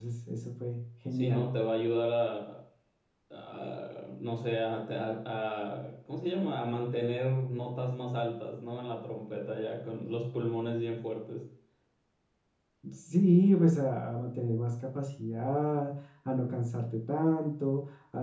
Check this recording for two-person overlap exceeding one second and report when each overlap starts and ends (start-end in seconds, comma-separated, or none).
none